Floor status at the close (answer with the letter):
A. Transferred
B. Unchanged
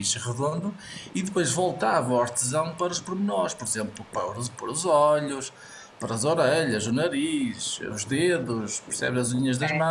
B